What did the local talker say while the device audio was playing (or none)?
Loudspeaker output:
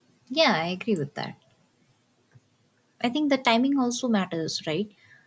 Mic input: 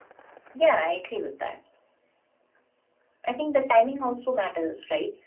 none